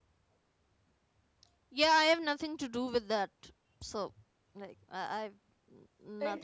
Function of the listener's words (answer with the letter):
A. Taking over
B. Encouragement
A